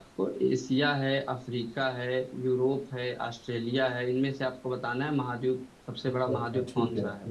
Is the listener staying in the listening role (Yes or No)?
No